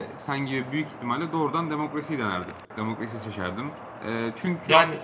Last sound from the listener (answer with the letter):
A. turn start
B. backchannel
B